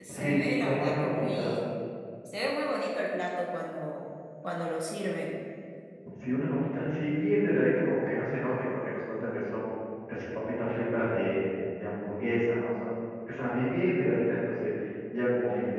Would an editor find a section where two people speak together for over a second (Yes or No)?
Yes